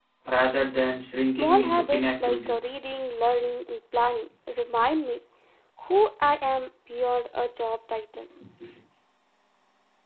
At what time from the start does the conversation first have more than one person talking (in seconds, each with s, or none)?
1.2 s